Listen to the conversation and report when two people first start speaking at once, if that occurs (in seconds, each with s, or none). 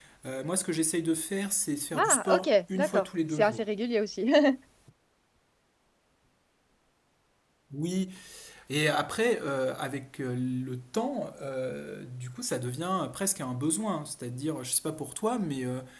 1.9 s